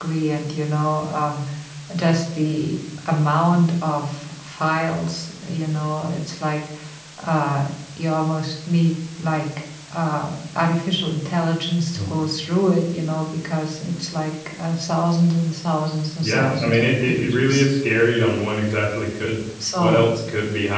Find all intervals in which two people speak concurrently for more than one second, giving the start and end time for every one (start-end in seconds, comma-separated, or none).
16.2-17.7